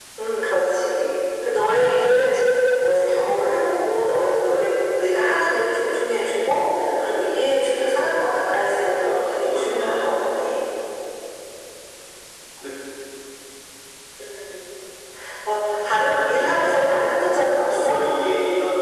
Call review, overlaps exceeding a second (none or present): present